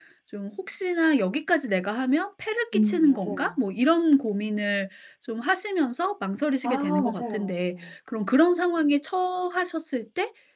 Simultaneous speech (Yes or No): Yes